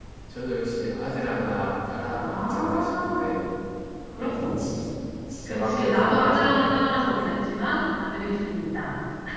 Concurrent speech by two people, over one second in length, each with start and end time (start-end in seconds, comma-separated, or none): 2.1-3.3, 5.5-6.7